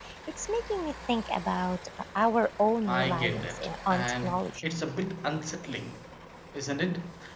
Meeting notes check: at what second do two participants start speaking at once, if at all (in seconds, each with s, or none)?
2.9 s